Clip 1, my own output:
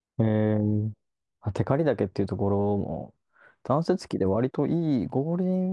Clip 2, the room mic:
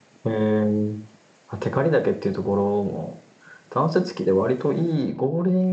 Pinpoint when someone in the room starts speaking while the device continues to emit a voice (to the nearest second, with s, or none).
none